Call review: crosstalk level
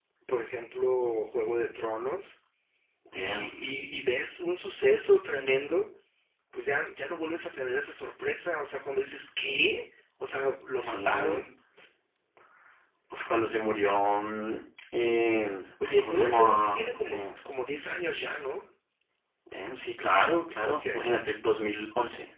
present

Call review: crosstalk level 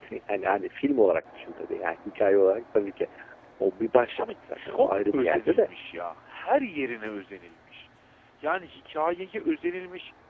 present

